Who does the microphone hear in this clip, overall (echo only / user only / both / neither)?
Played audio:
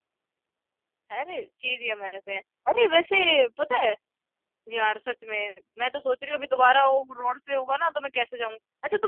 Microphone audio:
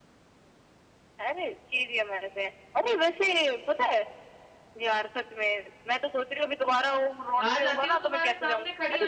both